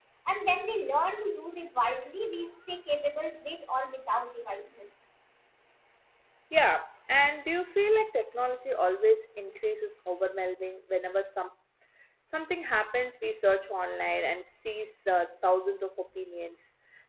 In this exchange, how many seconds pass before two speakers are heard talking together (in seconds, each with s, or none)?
none